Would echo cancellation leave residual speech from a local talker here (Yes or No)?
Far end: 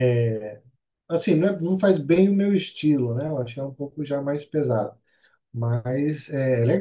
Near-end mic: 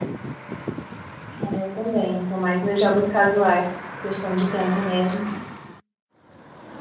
Yes